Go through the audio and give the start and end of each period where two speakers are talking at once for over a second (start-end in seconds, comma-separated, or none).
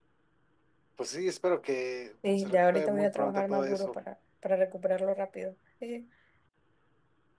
2.4-3.9